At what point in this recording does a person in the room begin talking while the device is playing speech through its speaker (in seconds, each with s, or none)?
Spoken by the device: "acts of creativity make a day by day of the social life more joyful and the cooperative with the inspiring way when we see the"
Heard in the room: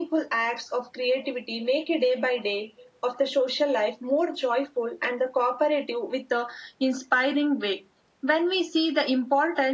none